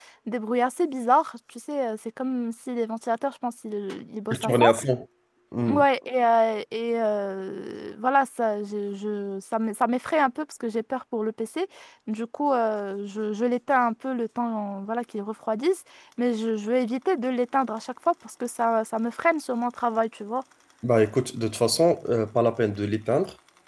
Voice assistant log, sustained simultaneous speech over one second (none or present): none